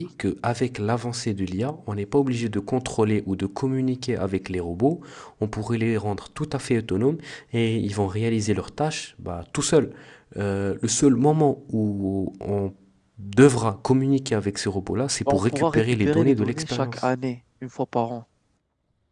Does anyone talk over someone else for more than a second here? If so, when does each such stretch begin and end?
15.3-17.1

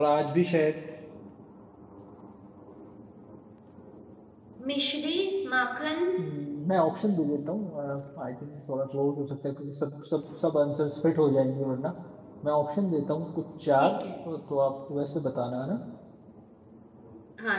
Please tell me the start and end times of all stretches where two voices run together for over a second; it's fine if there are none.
none

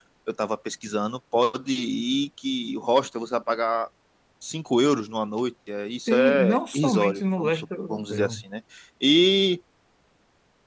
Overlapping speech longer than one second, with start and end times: 6.0-8.4

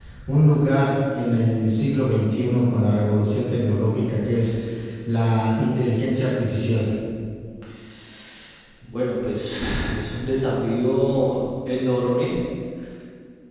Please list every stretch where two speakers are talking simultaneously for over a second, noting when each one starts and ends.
none

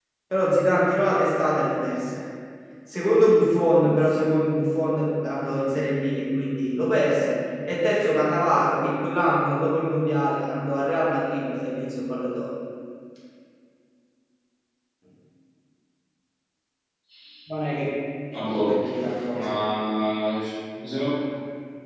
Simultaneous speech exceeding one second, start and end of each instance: none

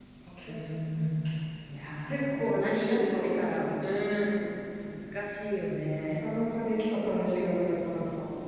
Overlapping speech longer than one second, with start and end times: 2.1-3.3

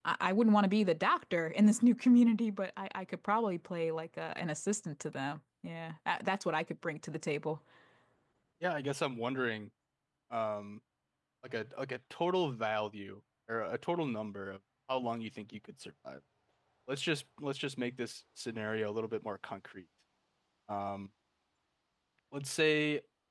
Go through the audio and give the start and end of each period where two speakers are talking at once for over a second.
none

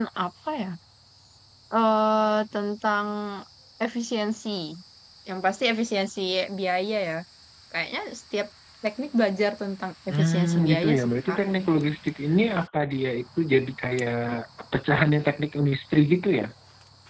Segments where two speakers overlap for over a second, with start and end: 10.1-11.4

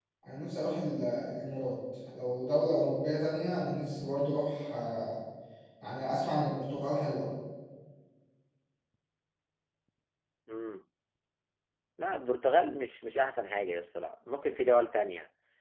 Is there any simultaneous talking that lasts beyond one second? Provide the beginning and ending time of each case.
none

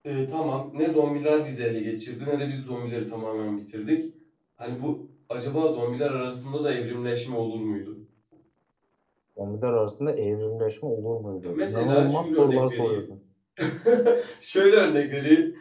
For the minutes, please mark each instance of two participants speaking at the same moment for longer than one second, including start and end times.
11.5-13.0

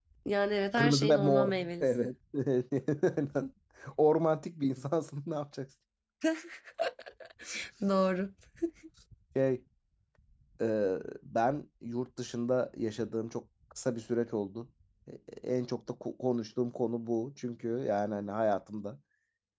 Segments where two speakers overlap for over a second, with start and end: 0.8-2.1

